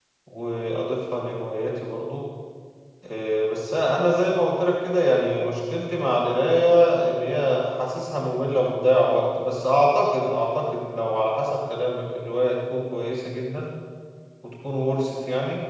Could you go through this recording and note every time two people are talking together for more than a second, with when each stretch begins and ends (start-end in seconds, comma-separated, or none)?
none